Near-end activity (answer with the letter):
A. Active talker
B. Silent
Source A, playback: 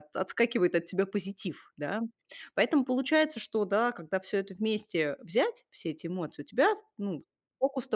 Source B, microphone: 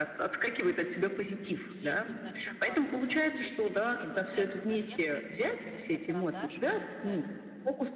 A